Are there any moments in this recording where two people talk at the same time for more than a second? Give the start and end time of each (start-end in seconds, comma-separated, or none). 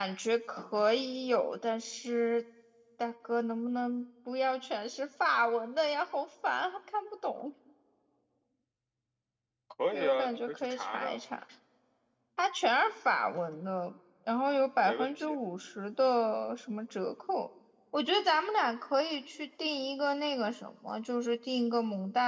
9.9-11.2